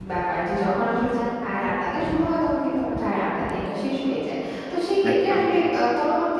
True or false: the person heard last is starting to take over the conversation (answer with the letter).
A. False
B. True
A